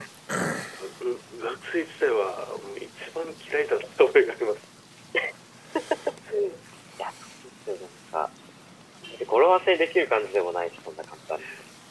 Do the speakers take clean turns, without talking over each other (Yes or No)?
Yes